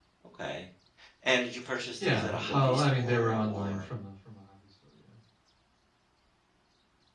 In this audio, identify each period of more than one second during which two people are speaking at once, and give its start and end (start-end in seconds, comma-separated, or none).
2.0-3.9